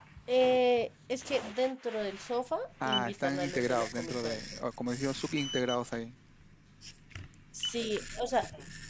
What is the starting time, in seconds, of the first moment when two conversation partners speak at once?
2.8 s

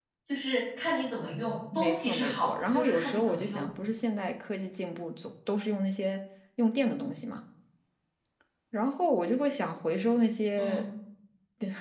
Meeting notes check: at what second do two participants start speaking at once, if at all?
1.7 s

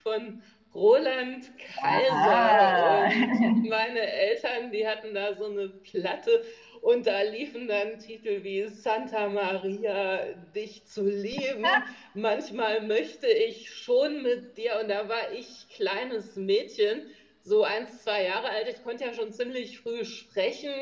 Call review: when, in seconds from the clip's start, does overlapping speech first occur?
1.8 s

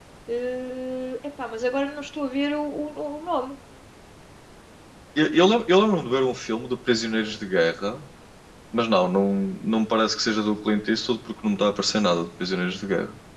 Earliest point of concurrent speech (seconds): none

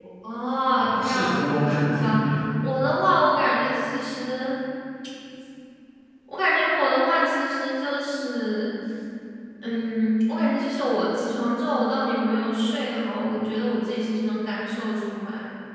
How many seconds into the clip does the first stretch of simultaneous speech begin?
0.8 s

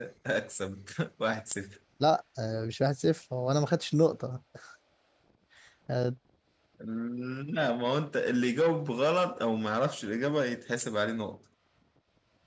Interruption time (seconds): none

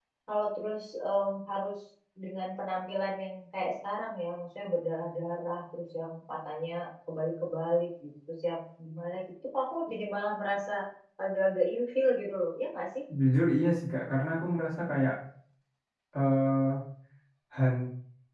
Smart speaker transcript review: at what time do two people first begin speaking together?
none

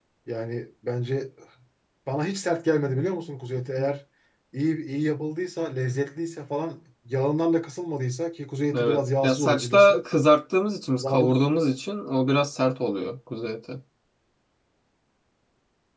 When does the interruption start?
8.7 s

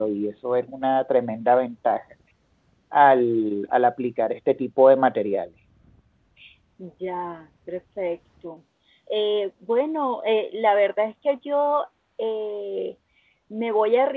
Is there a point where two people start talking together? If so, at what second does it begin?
none

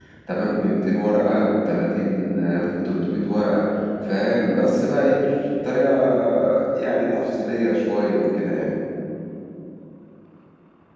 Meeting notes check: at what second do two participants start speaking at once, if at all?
none

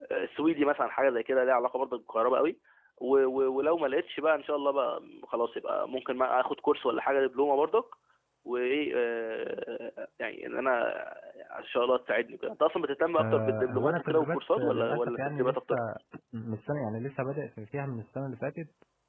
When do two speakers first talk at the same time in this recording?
13.2 s

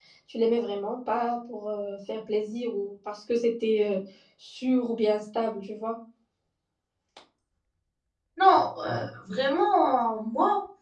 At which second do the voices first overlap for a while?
none

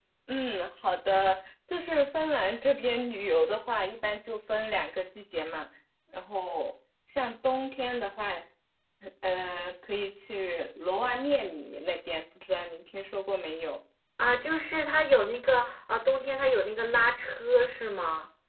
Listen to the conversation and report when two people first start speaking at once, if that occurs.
none

